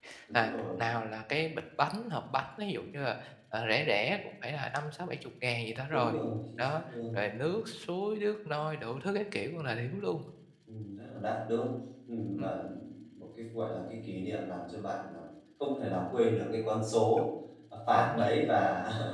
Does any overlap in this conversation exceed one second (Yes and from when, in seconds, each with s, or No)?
No